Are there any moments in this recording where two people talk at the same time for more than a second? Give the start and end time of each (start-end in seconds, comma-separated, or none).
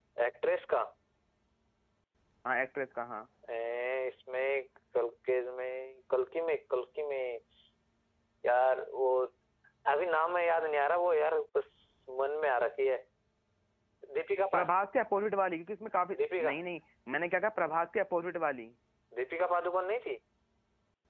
none